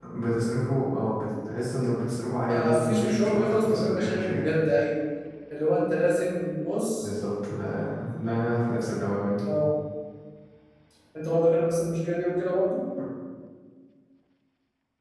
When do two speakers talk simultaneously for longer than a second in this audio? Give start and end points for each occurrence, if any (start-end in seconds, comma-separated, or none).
2.5-4.5